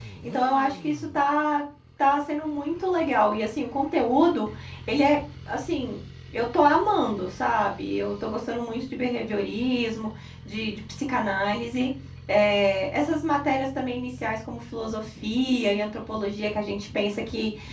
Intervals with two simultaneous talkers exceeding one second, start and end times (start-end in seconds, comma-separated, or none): none